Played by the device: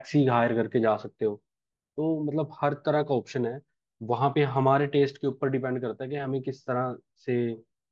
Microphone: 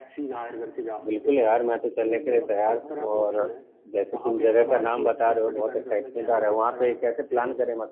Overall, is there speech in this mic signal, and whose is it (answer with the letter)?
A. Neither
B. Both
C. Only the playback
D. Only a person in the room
B